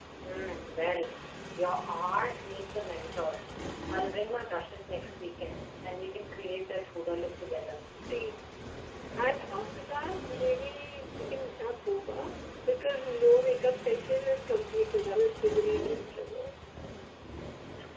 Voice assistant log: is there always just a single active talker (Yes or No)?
Yes